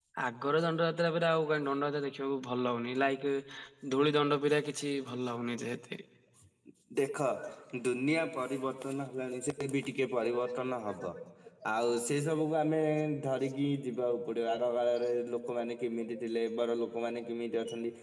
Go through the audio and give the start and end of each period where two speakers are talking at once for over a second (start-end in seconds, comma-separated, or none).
none